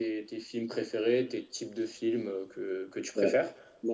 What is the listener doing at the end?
taking over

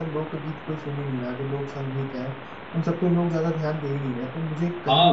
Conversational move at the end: taking over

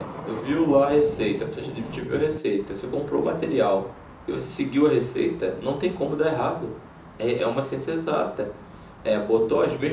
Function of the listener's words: listening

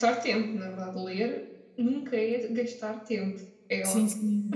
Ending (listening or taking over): taking over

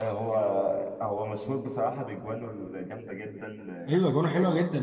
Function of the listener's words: taking over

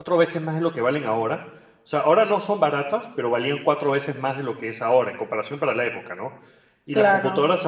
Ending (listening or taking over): listening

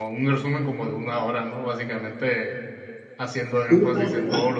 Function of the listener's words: listening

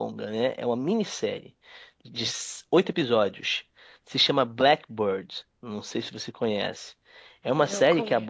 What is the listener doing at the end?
listening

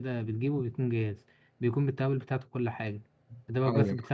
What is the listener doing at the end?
listening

